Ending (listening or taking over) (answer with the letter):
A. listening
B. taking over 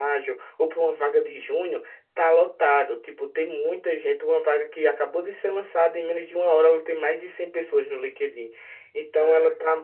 A